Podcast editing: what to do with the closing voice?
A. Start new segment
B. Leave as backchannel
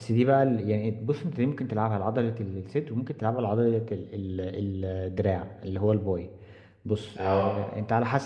B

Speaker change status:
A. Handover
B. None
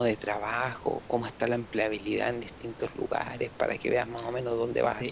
A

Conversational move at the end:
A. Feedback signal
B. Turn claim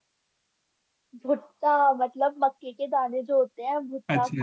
B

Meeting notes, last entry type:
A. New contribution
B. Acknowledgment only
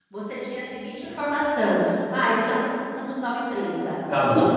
B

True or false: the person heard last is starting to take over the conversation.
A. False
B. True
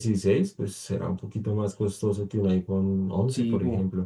B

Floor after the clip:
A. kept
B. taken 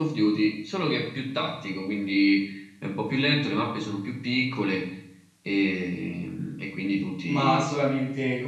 B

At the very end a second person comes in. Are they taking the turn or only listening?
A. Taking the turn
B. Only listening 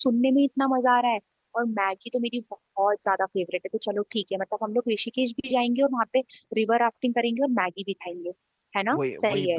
A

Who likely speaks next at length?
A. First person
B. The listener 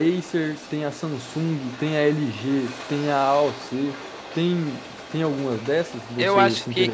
B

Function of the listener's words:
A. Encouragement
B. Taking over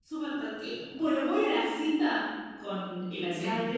A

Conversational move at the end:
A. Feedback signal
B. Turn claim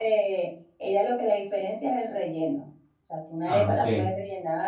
A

